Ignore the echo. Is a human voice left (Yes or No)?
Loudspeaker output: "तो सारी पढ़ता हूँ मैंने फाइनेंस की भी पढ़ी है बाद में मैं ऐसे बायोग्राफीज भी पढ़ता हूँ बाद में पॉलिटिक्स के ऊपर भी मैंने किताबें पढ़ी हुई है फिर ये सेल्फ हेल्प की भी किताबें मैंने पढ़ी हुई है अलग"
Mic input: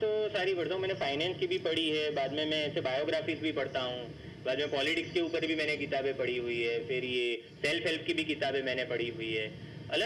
No